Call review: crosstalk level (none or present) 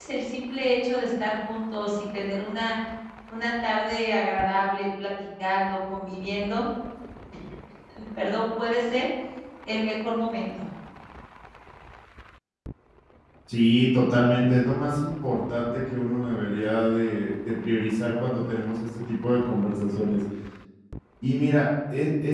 none